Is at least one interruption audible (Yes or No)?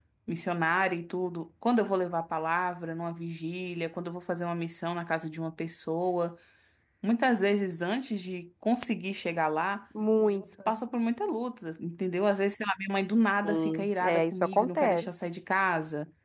Yes